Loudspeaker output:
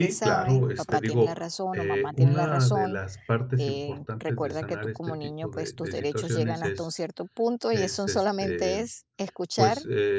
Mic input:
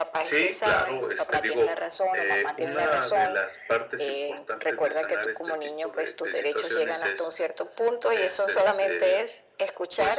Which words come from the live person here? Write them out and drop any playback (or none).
none